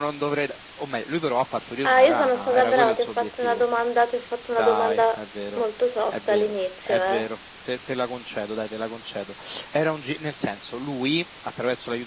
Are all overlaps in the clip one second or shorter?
No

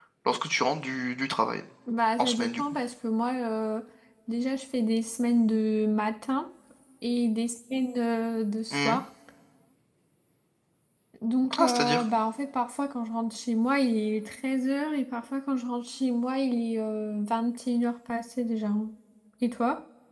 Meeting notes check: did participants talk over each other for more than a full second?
No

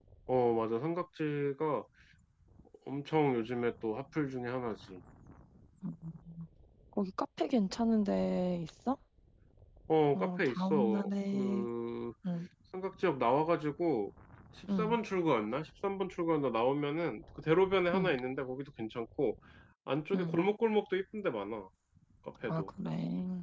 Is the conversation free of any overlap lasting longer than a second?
No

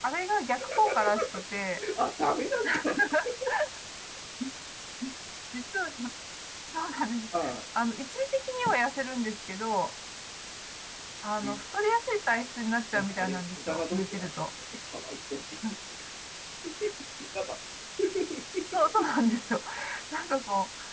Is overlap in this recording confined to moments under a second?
No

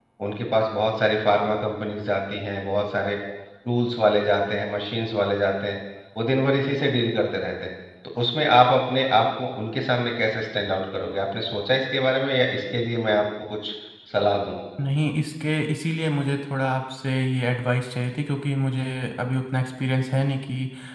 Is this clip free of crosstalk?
Yes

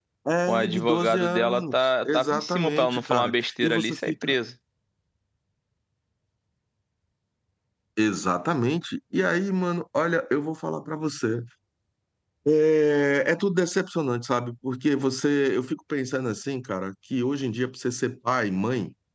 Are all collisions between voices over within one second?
No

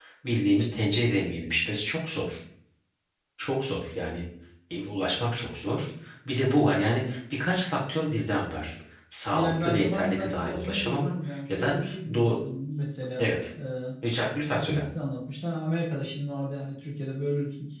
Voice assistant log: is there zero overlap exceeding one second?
No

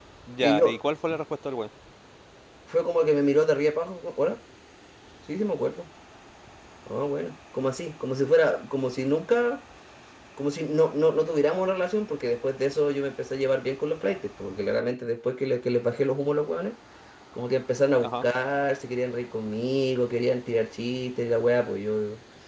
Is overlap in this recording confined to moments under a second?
Yes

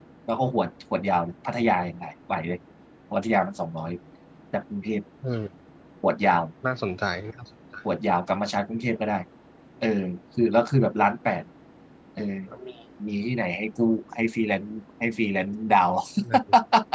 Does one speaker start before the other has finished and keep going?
No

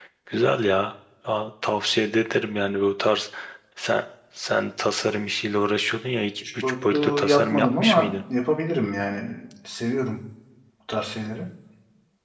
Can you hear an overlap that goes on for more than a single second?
Yes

